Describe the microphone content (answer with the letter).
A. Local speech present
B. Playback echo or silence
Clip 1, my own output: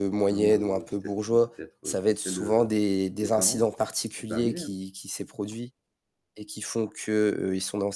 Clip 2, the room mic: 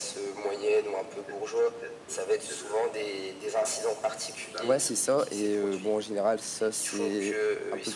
A